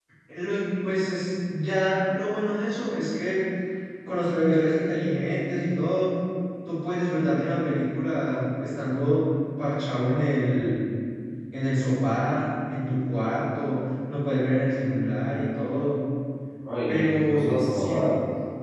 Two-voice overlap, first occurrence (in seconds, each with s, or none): 16.9 s